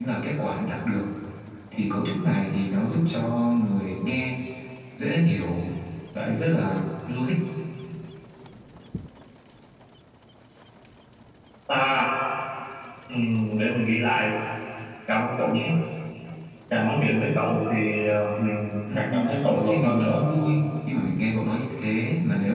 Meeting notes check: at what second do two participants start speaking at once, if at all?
19 s

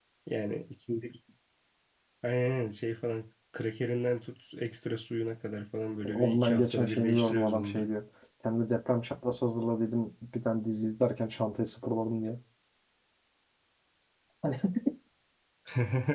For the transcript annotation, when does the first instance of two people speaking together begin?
6 s

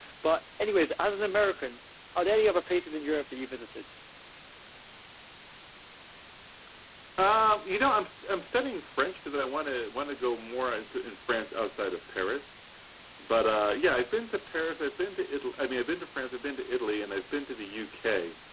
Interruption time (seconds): none

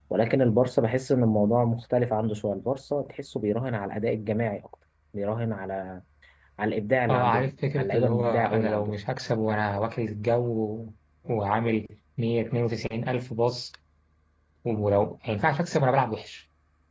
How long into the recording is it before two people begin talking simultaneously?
7 s

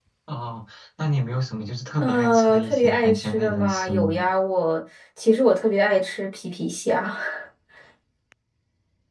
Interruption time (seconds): 2 s

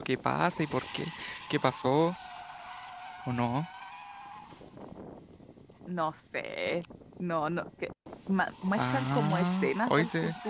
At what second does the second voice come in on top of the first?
9 s

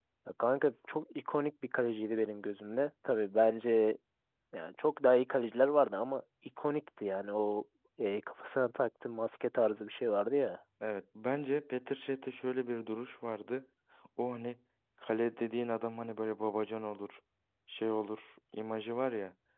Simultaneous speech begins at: none

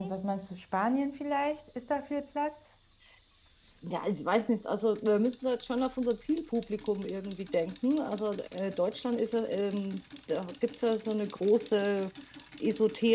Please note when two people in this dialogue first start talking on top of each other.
none

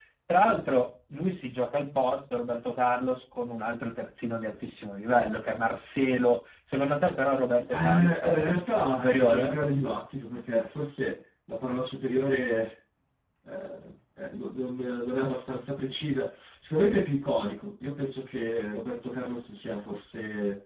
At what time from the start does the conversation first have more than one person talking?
8 s

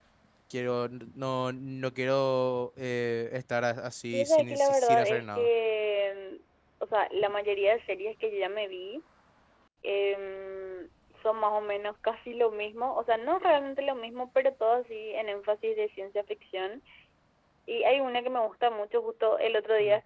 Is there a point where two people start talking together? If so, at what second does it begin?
4 s

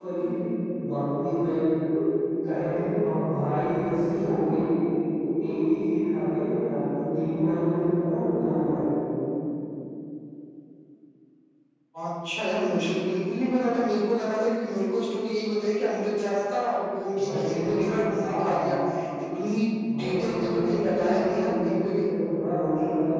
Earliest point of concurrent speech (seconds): 17 s

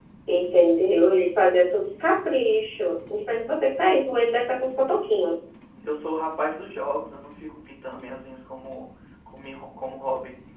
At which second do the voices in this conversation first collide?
none

